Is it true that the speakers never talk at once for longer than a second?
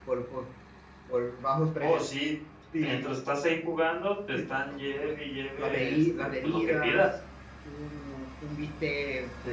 No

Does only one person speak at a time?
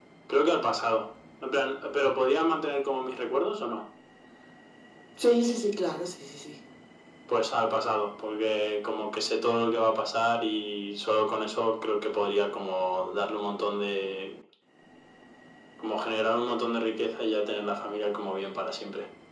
Yes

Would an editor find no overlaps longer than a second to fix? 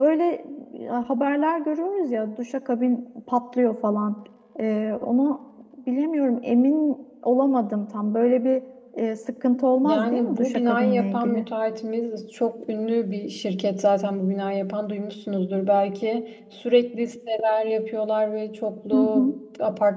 No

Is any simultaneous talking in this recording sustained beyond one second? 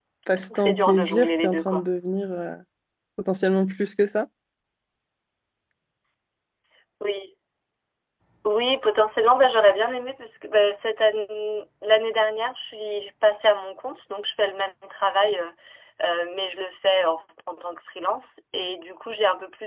Yes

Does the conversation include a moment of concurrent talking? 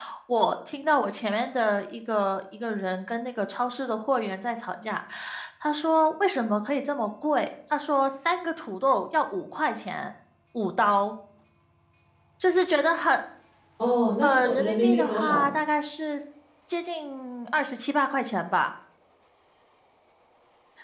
Yes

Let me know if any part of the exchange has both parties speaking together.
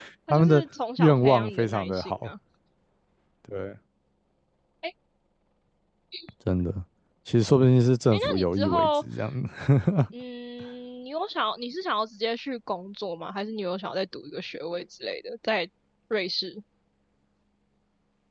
Yes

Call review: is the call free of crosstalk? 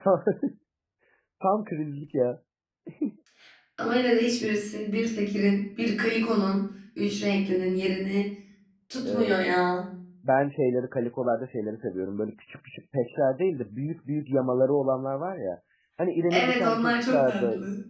No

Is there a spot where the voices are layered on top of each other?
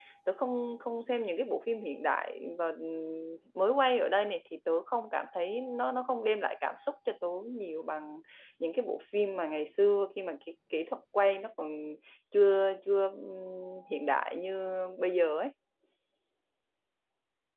No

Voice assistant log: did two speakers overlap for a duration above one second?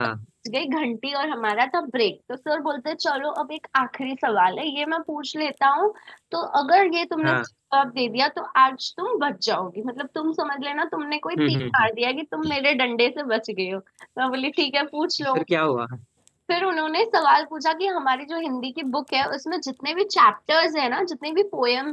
No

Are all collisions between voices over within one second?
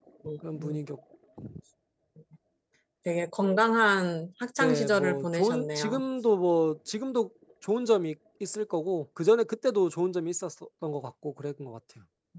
No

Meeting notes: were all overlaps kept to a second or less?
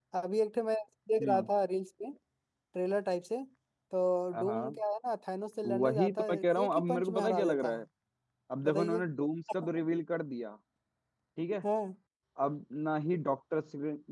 No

